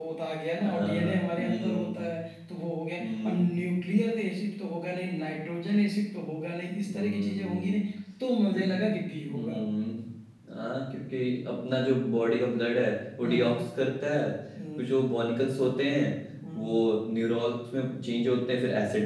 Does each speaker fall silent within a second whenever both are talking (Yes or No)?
No